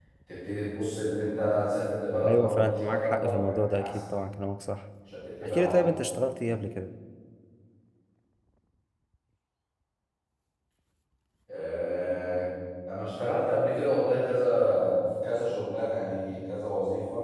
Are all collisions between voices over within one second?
No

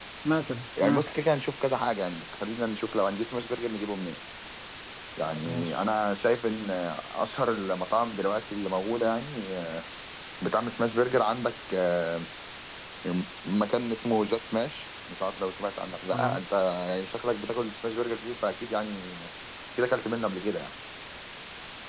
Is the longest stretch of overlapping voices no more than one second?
Yes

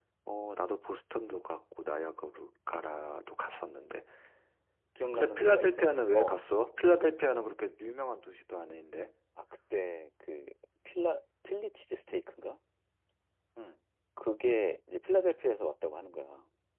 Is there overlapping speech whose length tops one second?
Yes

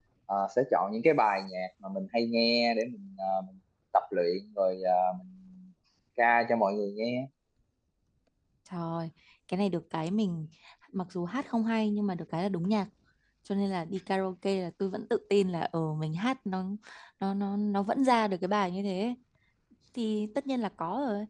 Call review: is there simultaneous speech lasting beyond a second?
No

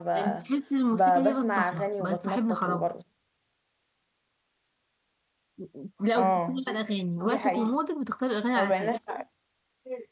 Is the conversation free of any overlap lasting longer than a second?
No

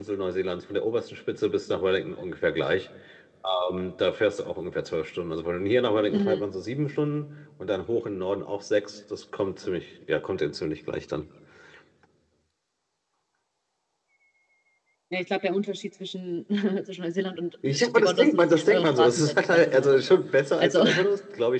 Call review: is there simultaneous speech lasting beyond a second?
Yes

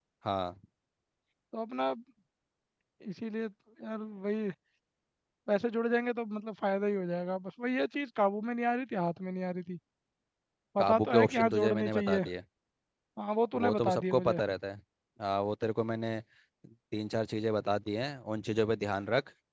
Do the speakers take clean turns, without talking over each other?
No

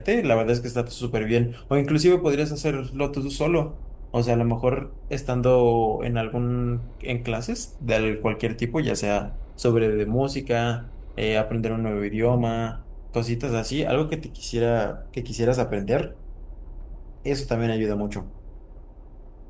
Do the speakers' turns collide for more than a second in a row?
No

